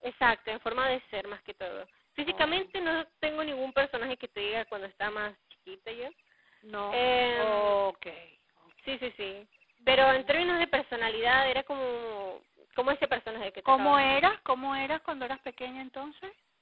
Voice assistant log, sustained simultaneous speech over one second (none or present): none